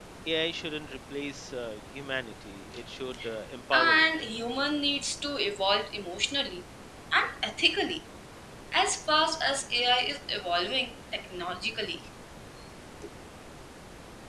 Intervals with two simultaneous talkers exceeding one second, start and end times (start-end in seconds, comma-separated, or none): none